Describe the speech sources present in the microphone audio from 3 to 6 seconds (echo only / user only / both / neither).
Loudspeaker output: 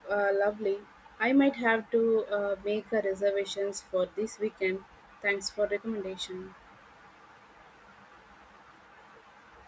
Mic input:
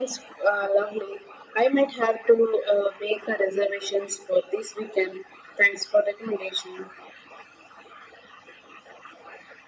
echo only